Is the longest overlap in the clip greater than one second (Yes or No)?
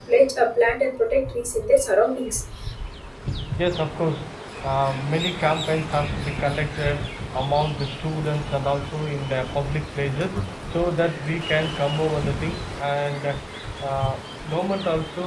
No